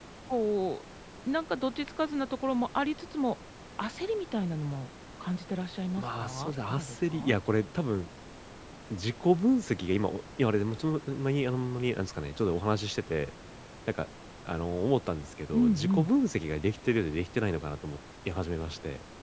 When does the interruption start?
6.0 s

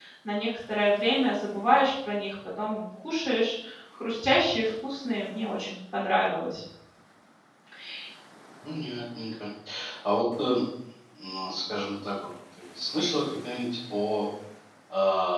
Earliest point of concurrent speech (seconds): none

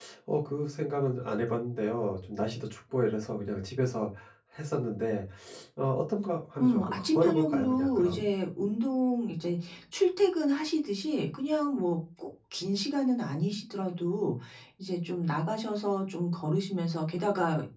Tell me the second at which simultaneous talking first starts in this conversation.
6.6 s

